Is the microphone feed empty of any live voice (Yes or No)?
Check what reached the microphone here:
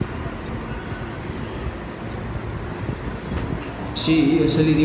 No